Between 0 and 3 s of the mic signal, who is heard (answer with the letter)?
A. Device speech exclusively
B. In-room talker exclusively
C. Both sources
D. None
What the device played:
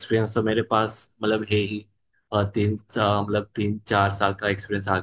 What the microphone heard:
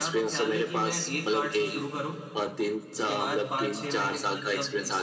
C